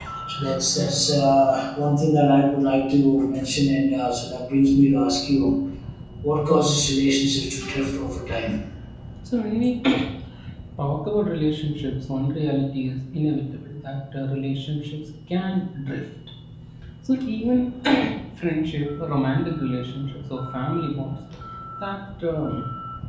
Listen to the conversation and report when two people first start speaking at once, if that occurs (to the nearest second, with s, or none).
none